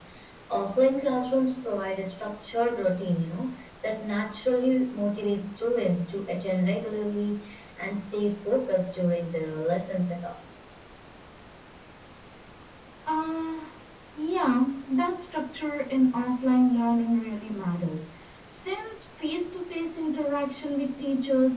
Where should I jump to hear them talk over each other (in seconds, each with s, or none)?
none